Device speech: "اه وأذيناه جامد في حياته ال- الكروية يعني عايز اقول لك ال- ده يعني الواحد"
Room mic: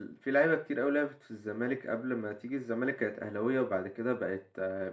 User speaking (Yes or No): Yes